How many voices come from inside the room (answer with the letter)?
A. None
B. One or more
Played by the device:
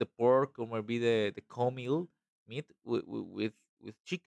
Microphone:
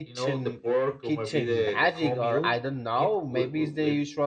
B